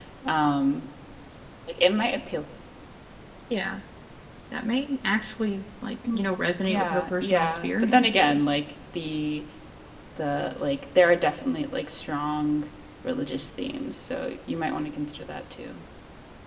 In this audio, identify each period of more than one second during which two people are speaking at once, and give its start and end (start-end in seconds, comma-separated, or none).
6.6-8.5